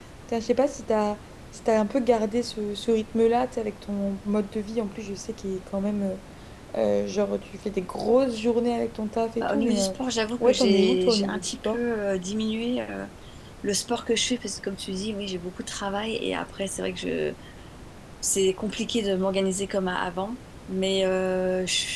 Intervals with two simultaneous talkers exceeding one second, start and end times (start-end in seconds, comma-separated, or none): 10.4-11.8